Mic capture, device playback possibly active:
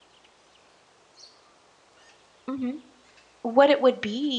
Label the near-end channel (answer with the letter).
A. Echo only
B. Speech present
B